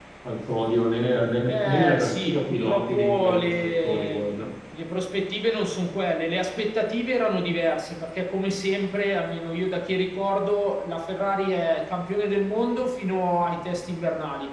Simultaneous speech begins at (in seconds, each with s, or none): 1.5 s